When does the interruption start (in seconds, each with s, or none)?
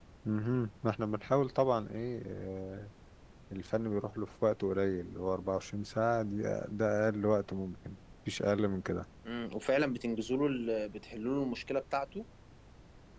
none